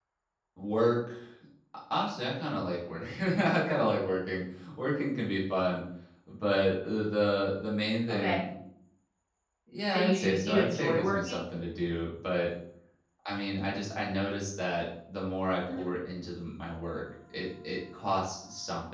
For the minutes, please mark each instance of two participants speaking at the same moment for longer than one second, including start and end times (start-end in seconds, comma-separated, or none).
9.9-11.4